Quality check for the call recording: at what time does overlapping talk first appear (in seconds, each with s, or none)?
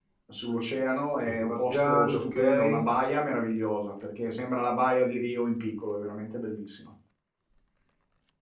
1.2 s